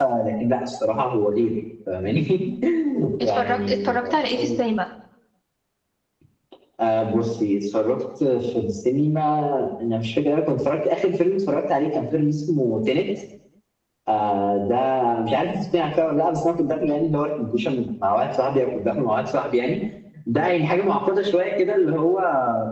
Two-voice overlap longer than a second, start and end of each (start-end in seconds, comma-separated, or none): 3.2-4.4